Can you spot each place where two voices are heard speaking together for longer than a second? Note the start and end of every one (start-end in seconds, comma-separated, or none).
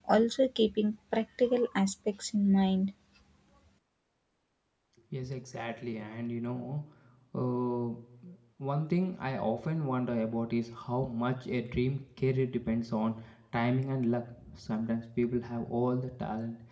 none